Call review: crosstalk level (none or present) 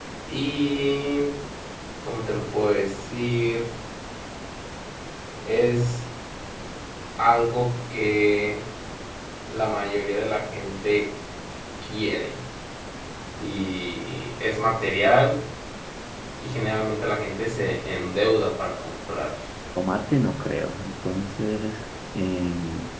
none